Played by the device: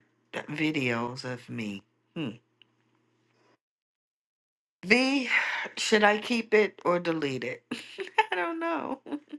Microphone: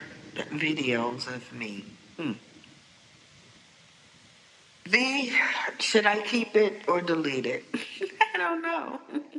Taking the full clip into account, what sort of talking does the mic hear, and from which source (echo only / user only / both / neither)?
echo only